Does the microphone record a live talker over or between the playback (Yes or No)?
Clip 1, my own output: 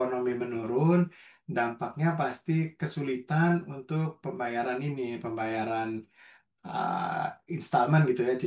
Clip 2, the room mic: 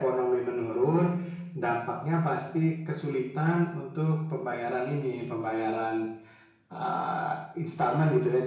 No